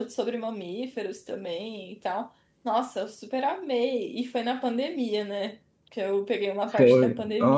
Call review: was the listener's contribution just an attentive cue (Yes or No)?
No